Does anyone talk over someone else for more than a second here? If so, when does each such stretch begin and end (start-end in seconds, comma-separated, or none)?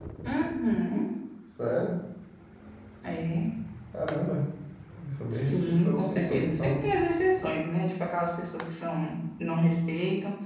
5.3-6.8